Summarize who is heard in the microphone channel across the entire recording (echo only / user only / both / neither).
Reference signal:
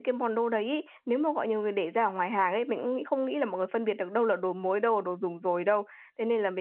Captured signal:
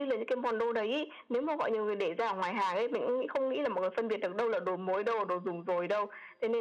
echo only